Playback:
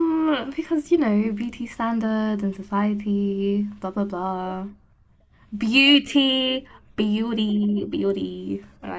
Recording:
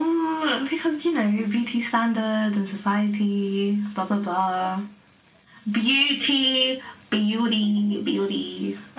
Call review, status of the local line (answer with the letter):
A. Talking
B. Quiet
B